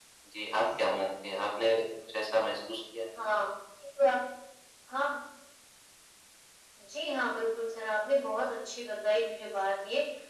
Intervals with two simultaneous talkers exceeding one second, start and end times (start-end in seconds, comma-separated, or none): none